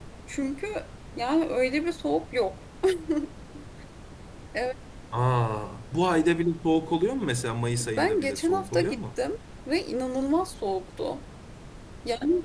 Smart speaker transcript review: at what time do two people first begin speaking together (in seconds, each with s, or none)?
7.8 s